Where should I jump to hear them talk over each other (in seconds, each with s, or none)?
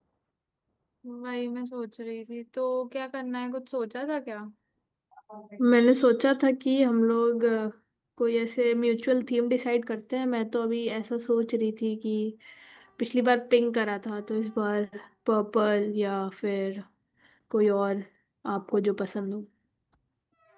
none